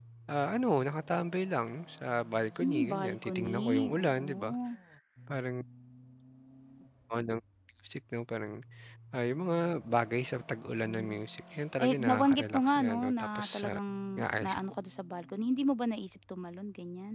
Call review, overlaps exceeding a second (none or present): present